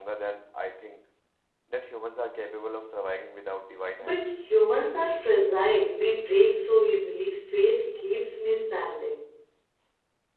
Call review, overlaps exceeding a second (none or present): none